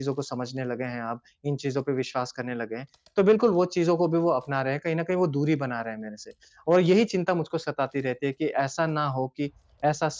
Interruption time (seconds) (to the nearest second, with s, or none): none